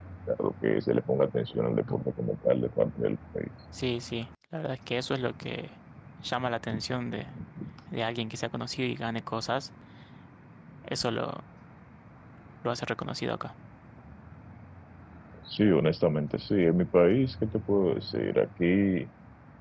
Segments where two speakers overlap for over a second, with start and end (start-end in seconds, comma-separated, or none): none